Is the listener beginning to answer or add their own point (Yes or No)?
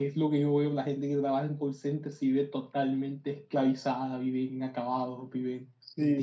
Yes